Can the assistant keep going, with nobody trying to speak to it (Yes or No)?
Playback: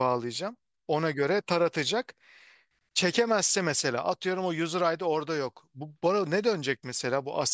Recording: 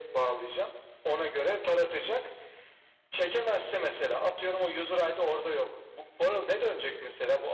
Yes